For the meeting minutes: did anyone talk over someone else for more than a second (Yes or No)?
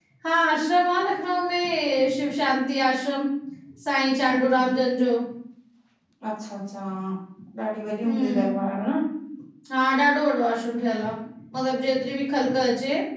No